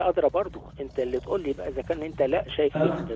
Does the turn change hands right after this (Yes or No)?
No